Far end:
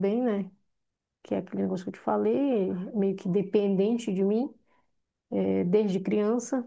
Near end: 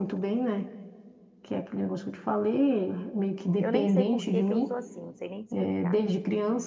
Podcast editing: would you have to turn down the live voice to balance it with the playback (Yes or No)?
No